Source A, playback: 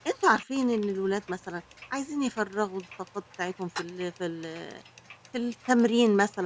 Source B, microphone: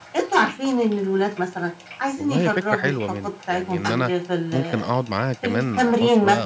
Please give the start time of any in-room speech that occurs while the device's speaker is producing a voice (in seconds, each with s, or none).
2.2 s